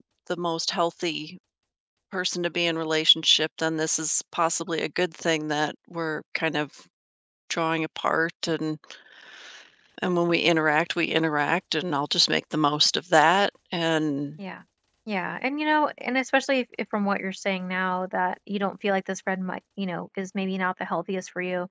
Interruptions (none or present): none